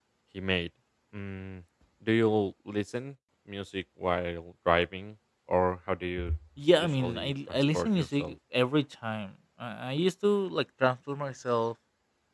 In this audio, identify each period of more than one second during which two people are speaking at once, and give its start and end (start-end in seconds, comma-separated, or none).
6.8-8.3